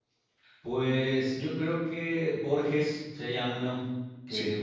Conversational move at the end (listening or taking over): listening